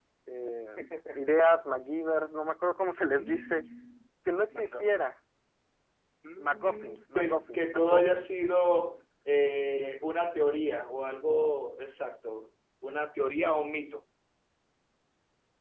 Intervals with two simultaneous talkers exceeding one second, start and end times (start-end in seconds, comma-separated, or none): 6.4-8.3